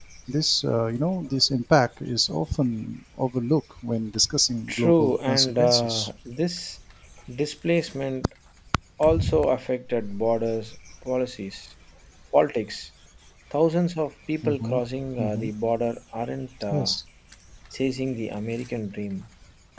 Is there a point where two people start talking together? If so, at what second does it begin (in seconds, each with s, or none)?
4.7 s